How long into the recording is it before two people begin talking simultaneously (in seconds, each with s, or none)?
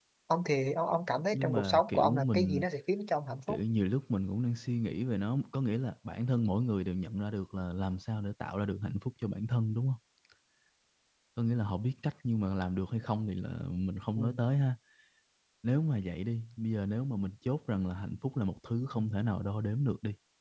1.3 s